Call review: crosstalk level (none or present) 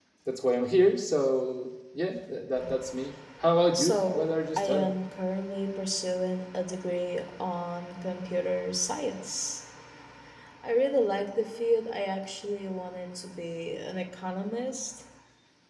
present